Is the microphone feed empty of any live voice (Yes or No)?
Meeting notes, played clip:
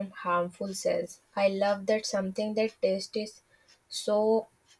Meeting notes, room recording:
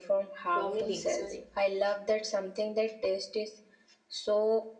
No